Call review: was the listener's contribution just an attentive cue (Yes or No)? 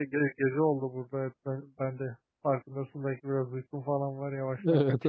No